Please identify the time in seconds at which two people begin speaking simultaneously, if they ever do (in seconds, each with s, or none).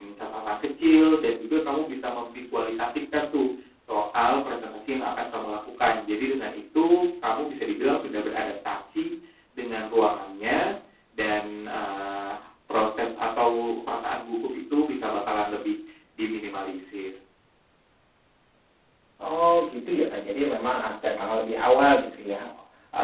none